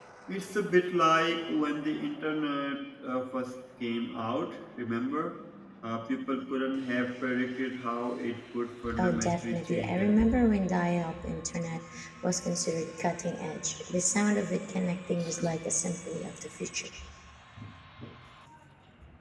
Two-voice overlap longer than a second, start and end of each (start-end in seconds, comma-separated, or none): 9.0-10.5